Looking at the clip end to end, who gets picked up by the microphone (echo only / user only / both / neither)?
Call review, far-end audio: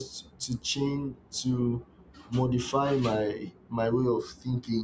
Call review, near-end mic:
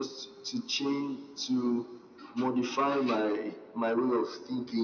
echo only